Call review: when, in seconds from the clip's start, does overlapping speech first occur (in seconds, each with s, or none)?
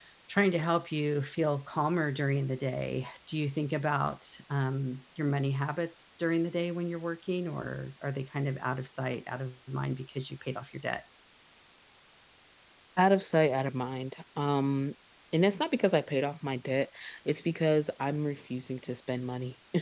none